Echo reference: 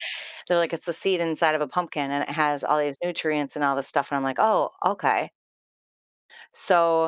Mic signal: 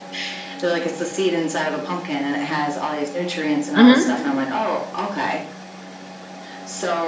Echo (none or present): present